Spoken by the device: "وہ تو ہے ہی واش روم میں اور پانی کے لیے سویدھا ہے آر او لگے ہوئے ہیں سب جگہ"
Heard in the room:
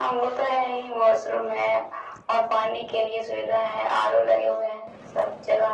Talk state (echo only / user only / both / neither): echo only